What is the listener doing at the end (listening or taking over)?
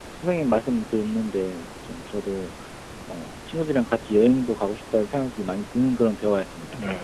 taking over